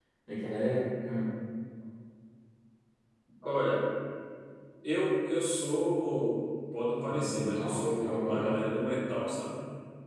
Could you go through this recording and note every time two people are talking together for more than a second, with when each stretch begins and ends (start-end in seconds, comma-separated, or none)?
7.1-8.6